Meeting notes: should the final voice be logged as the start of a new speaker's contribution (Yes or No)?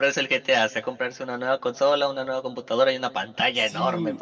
Yes